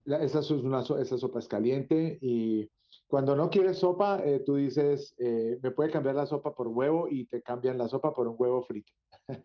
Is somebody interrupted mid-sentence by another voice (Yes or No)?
No